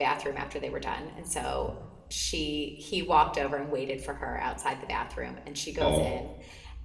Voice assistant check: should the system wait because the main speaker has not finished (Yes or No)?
Yes